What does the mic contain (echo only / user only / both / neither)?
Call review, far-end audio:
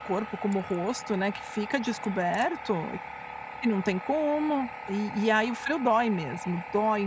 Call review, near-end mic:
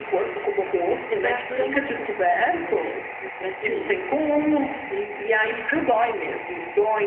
both